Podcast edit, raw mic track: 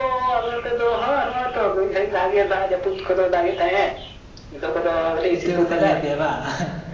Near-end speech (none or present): present